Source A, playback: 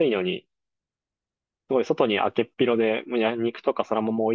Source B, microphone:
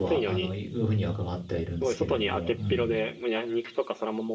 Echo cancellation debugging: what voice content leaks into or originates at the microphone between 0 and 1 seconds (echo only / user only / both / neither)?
both